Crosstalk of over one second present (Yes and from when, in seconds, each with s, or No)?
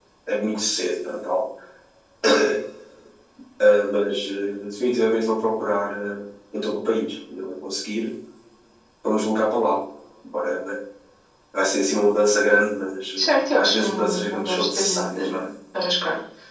Yes, from 13.2 s